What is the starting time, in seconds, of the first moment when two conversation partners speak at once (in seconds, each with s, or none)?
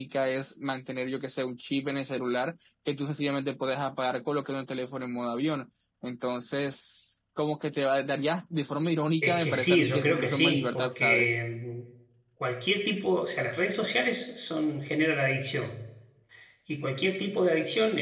9.2 s